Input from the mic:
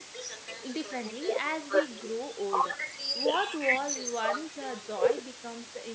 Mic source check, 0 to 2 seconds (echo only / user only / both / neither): both